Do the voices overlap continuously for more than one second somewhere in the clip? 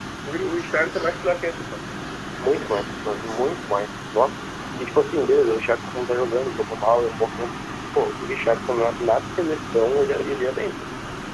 No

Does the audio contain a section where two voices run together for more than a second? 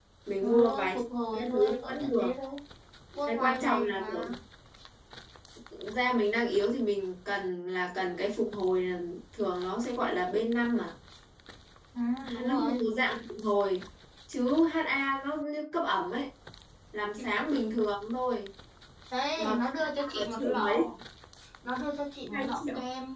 Yes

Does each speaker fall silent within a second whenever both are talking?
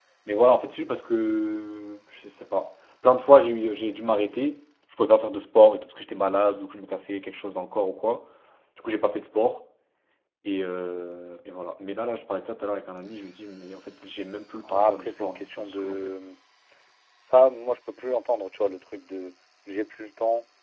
No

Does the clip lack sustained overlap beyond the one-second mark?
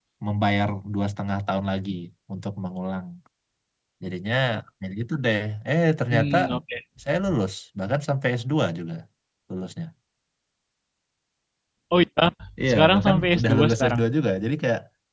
No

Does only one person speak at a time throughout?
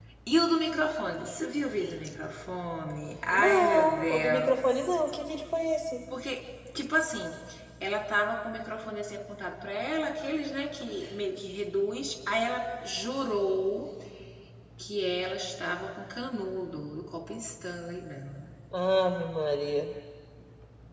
No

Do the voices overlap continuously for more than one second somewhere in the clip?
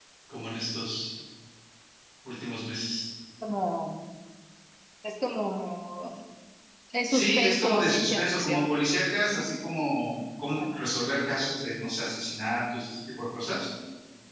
Yes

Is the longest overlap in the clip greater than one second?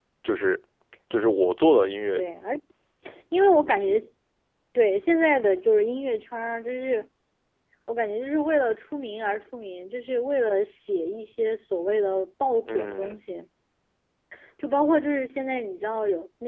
No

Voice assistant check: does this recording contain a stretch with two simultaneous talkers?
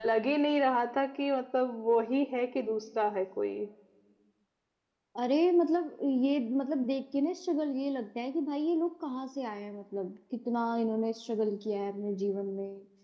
No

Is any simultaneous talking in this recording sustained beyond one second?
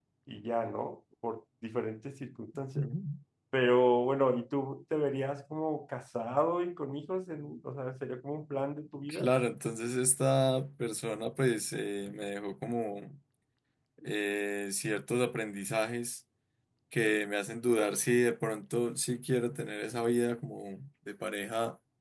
No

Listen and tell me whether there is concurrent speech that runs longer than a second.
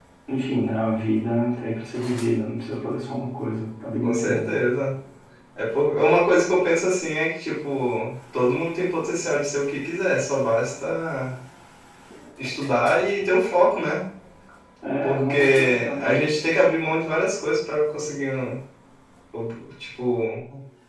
Yes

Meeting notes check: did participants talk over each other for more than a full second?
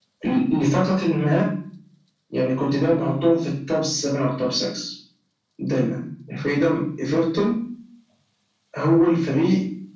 No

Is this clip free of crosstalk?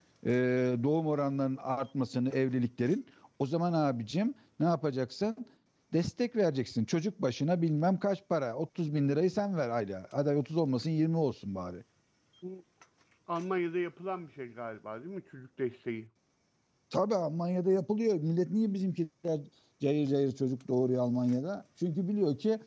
Yes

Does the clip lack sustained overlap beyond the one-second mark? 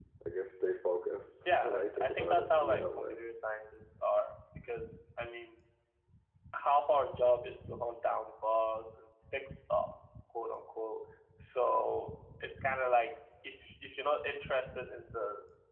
No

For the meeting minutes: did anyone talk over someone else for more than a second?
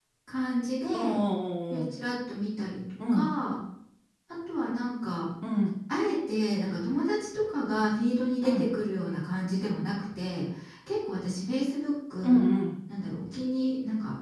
No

